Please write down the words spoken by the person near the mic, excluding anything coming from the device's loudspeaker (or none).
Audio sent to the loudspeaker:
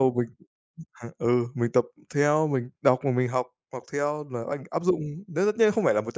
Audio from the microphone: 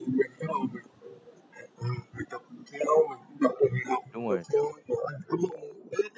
đúng rồi,